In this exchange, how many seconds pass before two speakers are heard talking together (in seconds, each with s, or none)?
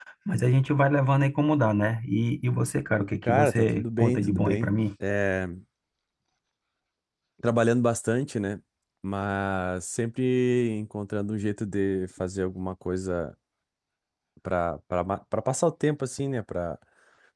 3.2 s